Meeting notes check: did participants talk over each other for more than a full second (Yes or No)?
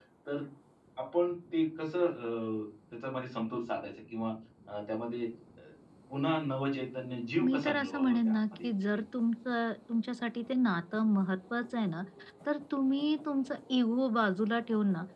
Yes